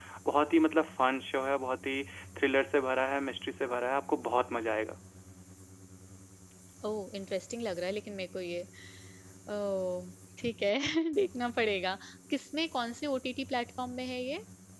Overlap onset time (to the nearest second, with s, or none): none